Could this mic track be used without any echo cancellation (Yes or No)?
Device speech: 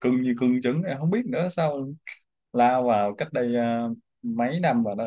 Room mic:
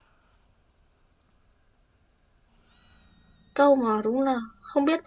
Yes